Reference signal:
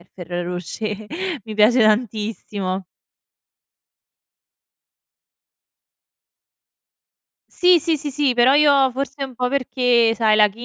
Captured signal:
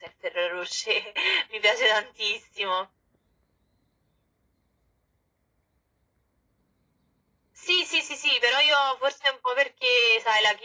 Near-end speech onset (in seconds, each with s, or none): none